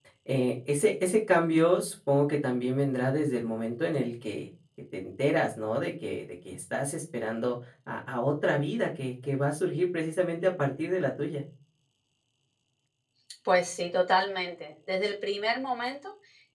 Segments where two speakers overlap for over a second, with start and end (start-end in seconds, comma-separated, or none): none